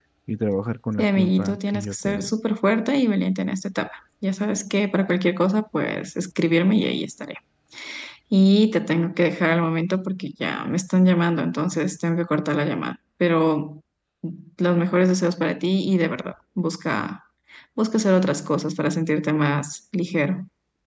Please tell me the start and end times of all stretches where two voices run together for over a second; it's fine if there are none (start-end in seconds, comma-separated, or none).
1.0-2.3